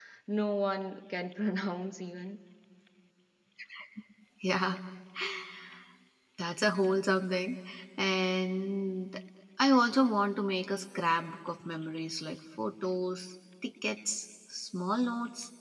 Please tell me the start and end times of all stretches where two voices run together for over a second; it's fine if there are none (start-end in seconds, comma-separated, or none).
none